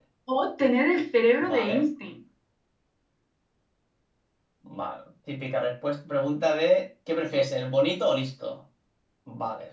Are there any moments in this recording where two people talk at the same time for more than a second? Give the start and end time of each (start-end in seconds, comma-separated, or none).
none